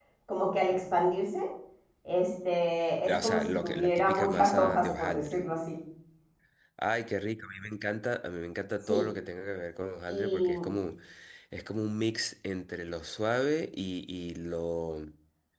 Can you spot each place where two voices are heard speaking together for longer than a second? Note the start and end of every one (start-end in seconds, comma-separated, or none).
3.1-5.4